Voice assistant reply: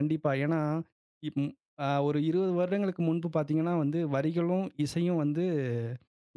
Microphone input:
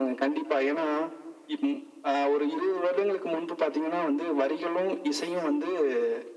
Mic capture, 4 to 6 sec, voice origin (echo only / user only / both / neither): echo only